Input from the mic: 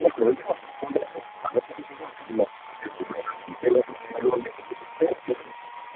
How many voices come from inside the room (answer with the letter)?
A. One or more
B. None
B